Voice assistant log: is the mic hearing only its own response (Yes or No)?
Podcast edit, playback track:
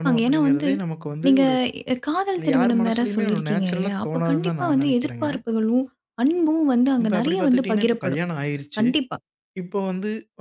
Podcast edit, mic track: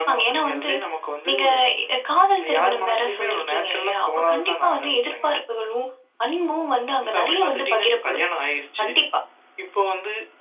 Yes